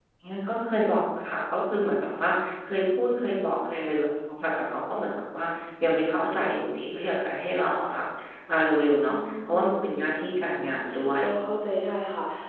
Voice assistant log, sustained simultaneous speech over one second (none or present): present